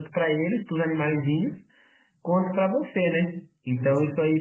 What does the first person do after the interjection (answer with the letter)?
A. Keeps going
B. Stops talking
A